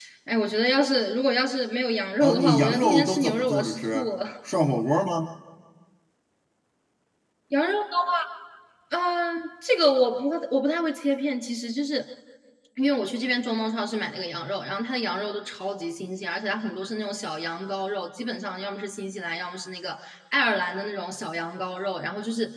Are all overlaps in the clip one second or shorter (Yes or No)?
No